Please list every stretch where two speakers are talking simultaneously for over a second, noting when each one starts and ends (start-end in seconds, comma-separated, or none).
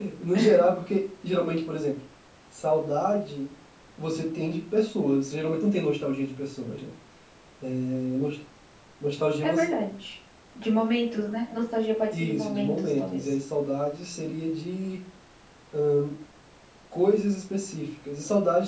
12.1-13.3